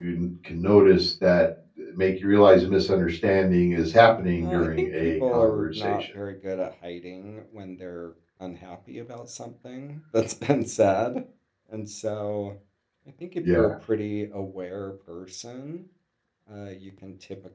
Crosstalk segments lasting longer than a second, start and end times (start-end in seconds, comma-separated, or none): 4.4-6.0